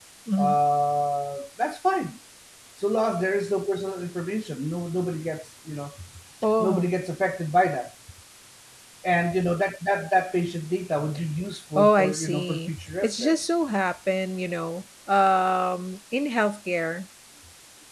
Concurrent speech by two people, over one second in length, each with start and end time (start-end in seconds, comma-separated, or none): 11.8-13.4